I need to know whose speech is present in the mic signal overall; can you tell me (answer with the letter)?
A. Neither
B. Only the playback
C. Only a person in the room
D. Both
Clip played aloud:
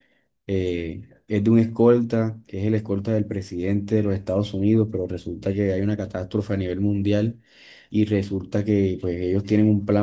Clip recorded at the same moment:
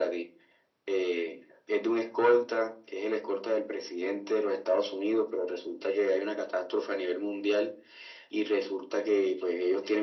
B